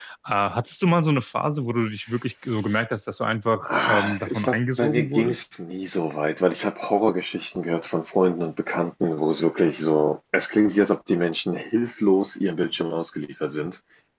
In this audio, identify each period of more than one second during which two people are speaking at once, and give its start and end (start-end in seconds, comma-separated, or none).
3.6-5.4